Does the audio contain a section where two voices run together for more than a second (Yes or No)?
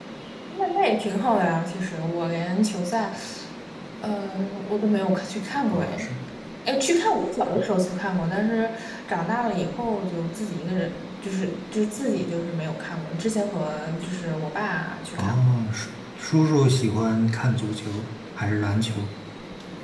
No